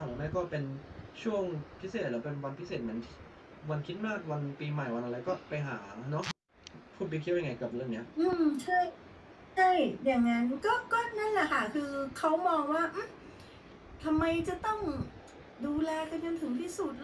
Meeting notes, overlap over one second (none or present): none